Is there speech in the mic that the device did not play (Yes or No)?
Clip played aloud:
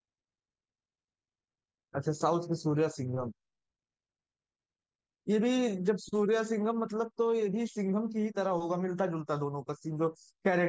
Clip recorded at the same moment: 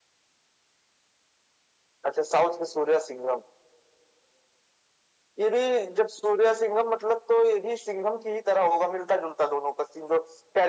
No